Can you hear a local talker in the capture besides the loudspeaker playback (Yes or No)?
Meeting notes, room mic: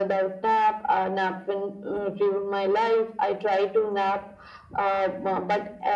No